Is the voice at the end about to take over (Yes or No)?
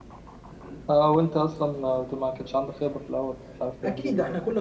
Yes